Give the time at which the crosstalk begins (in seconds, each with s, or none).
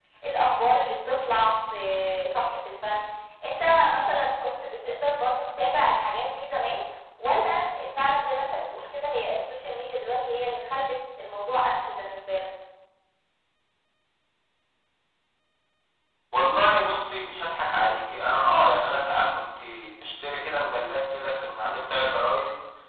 none